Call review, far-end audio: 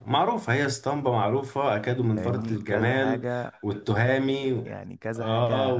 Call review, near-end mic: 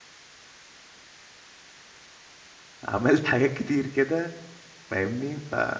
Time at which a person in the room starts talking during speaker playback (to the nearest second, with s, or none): 3 s